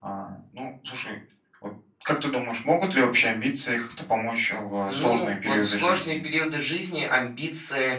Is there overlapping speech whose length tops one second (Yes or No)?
Yes